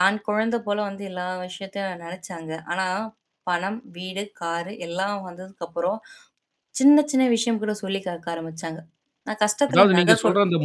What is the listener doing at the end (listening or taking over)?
taking over